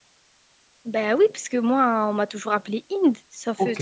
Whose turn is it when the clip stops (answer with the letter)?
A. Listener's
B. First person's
A